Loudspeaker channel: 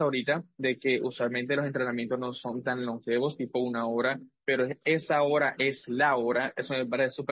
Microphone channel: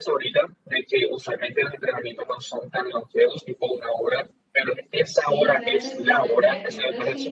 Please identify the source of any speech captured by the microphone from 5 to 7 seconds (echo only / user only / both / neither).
both